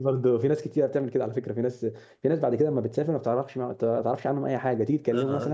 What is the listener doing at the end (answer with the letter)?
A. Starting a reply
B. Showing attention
B